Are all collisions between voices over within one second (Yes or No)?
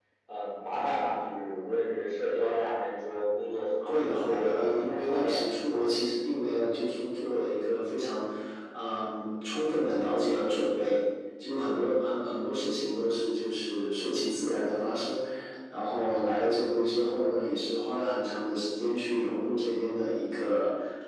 No